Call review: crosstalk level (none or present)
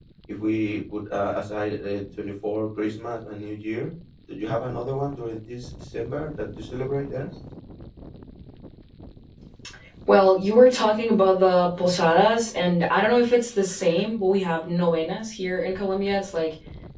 none